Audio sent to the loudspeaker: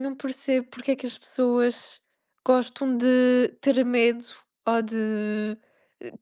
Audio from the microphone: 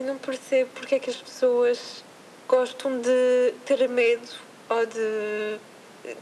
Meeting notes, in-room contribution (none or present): none